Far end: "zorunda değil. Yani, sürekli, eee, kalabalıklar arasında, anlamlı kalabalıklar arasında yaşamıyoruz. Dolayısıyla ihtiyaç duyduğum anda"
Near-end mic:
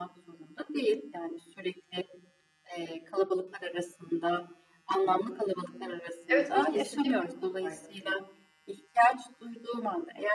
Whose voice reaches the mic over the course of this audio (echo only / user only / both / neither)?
both